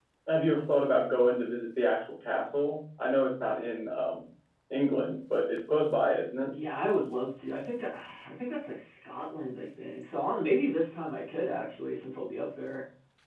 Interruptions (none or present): none